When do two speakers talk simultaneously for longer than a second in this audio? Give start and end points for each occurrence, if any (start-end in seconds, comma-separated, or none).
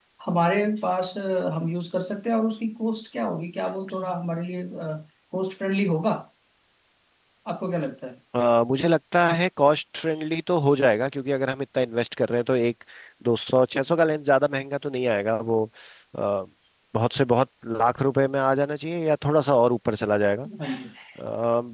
none